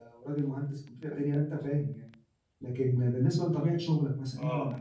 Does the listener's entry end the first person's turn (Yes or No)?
No